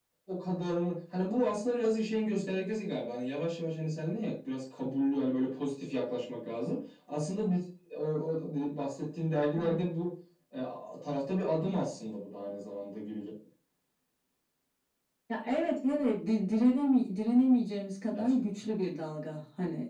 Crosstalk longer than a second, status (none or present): none